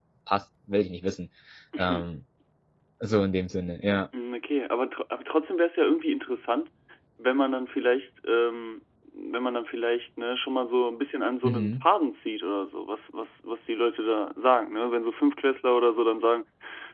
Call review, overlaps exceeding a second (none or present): none